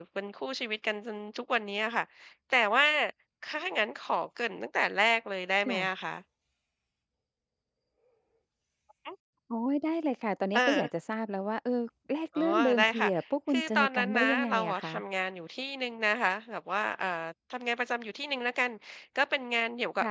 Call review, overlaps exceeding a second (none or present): present